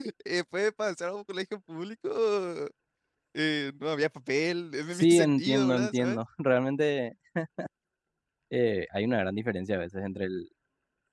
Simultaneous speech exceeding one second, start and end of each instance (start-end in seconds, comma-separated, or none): 4.9-6.2